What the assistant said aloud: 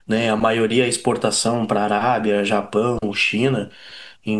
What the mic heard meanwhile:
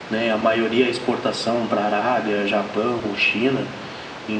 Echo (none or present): present